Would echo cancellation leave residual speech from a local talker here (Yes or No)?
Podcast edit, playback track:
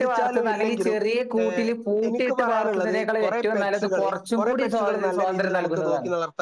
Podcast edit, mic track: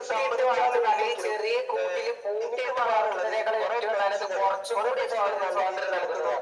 No